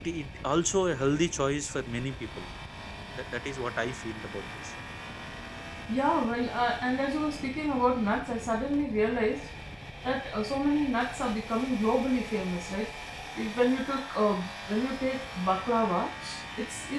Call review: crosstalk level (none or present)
none